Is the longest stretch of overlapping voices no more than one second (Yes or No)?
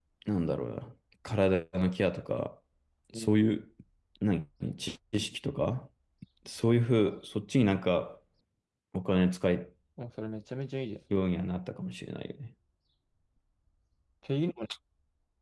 Yes